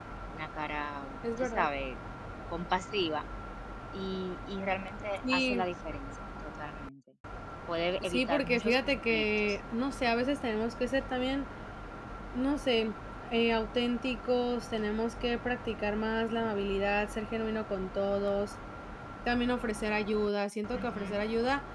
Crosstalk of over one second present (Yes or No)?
Yes